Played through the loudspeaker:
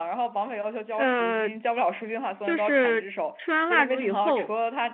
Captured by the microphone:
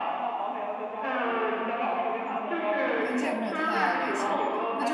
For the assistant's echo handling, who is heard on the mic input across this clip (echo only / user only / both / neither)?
both